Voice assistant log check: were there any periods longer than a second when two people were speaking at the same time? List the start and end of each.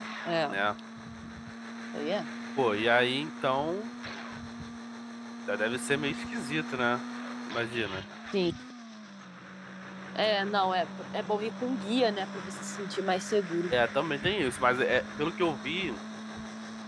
none

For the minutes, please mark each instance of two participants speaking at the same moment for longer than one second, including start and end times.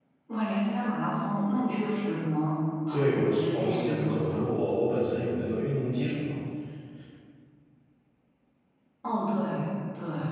2.9-4.4

